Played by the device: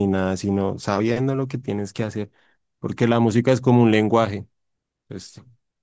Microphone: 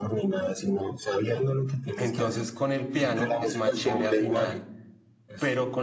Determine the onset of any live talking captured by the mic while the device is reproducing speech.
2.0 s

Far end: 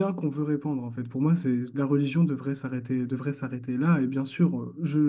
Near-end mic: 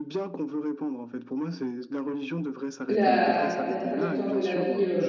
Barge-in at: 2.9 s

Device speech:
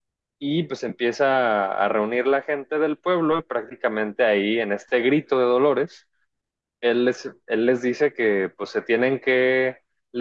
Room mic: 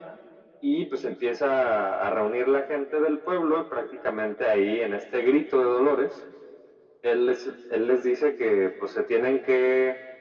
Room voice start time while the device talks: none

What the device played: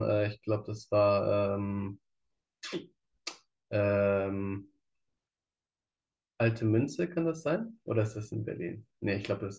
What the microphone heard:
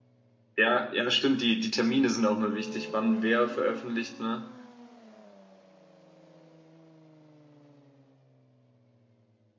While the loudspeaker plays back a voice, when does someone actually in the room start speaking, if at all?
0.6 s

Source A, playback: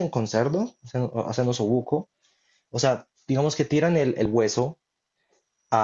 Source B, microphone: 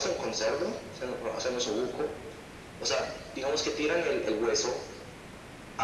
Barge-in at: none

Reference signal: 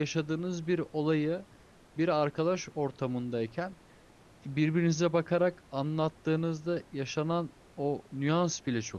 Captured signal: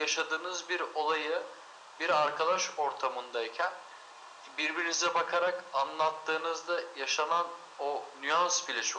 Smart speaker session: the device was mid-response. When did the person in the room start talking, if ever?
none

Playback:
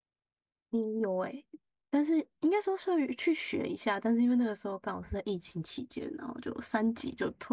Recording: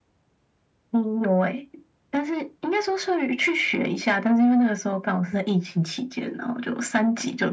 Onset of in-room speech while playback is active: none

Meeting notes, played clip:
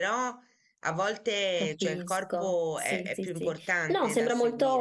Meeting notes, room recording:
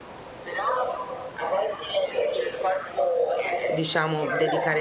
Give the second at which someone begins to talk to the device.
3.6 s

